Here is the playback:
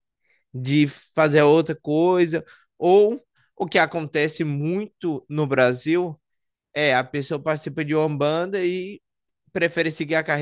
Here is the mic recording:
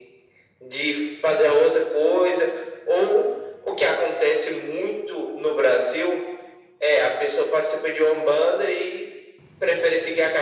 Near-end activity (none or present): none